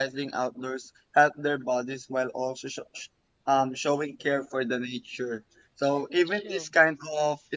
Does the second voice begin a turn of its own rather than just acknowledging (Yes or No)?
No